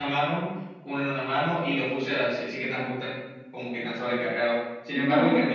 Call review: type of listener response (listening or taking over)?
listening